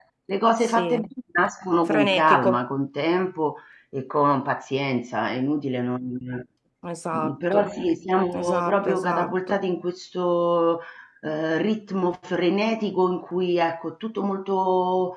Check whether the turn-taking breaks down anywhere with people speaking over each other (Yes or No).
Yes